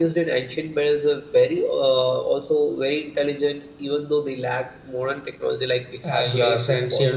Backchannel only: No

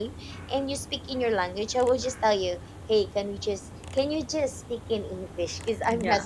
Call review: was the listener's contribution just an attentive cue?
No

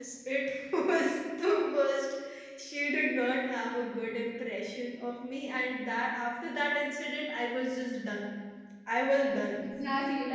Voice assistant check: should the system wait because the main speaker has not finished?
No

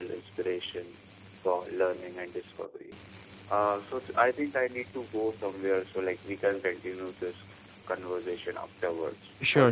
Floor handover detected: Yes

